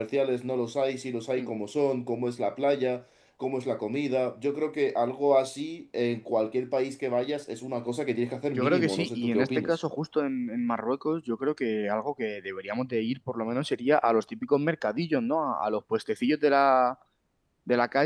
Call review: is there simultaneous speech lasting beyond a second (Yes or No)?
Yes